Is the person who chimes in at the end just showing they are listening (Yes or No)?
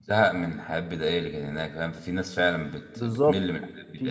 No